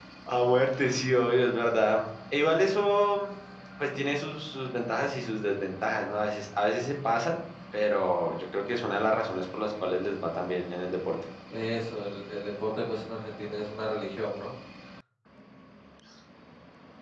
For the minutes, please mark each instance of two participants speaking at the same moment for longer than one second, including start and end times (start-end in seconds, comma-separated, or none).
none